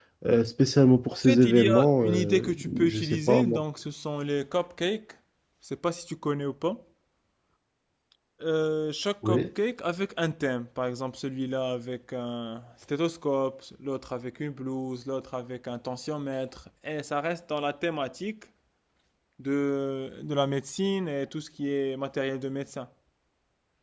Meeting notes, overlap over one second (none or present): present